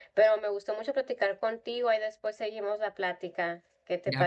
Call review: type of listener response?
taking over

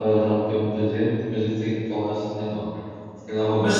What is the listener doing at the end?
taking over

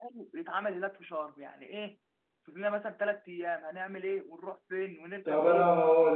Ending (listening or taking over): taking over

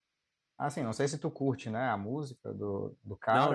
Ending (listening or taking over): taking over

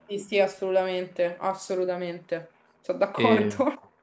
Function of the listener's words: taking over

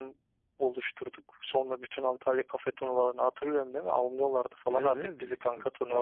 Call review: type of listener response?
taking over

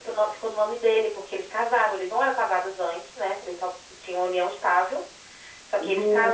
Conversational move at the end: listening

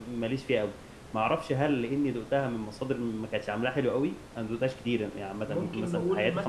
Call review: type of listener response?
taking over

